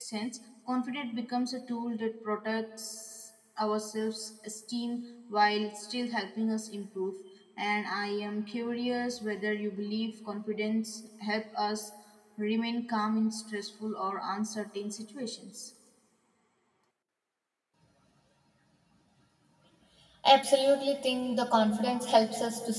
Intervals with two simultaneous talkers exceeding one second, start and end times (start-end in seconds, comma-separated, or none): none